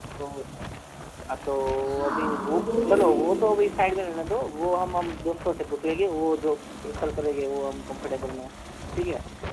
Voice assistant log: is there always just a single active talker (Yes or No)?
No